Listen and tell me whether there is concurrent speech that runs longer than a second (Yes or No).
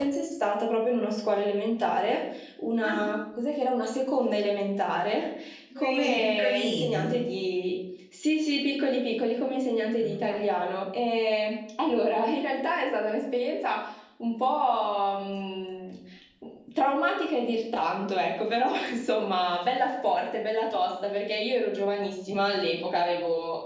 Yes